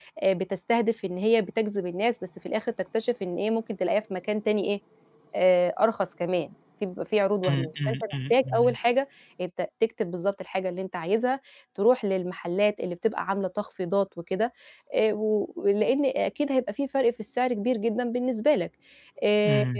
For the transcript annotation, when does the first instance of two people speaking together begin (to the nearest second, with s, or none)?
7 s